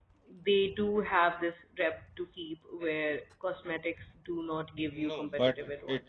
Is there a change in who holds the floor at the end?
Yes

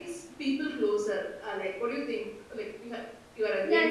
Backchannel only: No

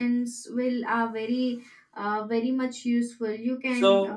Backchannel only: No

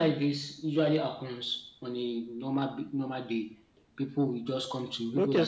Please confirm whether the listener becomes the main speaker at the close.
Yes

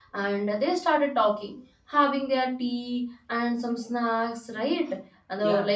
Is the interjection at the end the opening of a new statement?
No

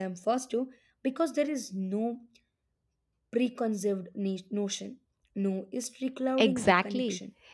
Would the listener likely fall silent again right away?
No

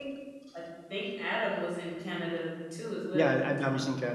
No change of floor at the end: No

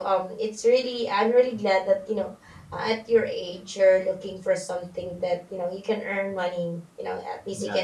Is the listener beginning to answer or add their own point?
No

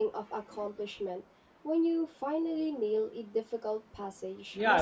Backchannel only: No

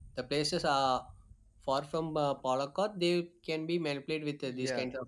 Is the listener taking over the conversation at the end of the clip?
Yes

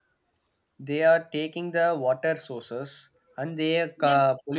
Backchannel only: No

